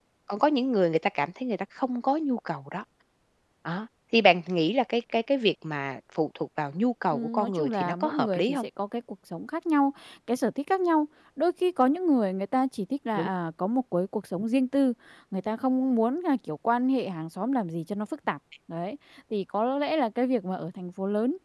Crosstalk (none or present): present